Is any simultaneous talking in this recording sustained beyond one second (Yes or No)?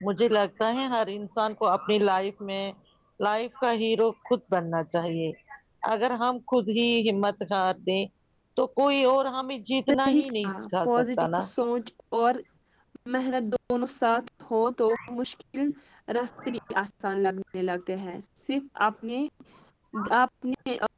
Yes